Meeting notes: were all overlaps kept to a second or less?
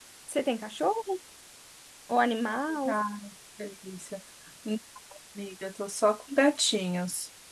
Yes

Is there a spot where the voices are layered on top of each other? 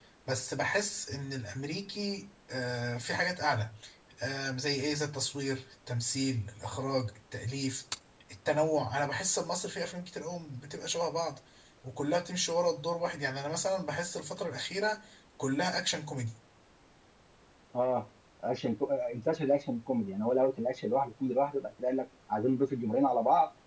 No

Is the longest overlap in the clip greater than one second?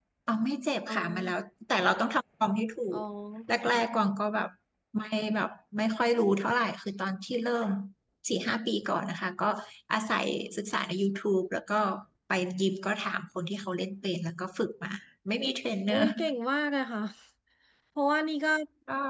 No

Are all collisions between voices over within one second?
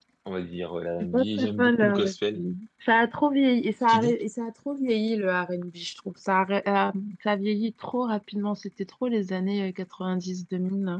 No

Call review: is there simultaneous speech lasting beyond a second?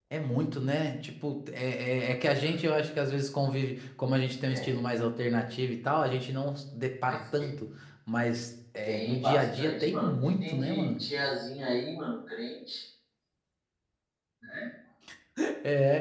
Yes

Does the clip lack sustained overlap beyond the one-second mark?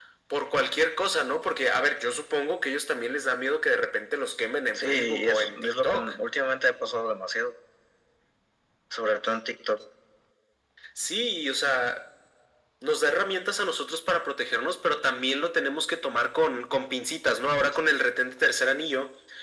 No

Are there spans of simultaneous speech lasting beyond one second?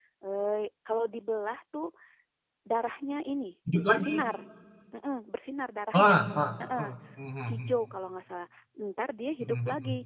No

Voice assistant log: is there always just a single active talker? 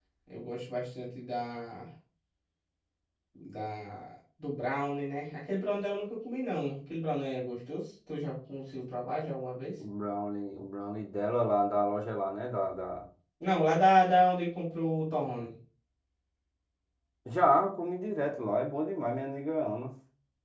Yes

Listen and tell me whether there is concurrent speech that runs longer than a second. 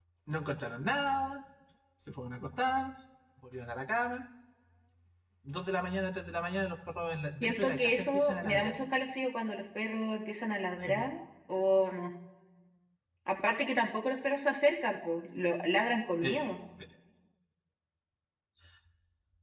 Yes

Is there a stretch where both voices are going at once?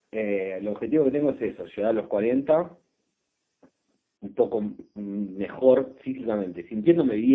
No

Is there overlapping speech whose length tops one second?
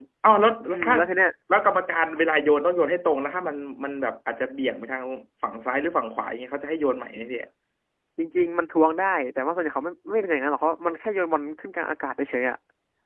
No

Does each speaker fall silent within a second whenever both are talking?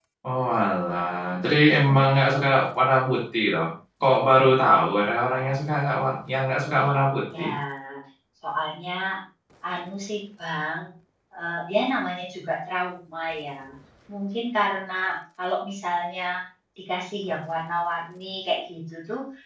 Yes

